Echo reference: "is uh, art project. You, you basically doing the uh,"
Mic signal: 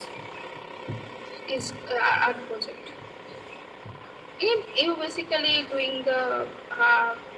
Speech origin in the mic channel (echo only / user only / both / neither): echo only